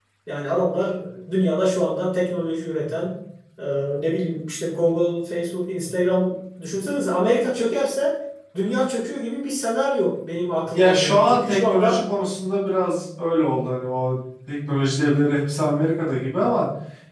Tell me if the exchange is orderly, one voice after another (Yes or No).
No